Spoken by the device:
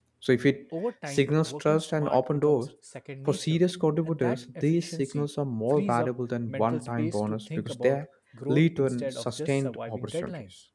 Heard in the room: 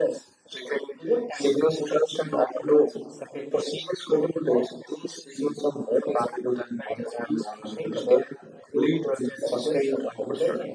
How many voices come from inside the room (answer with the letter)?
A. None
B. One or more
A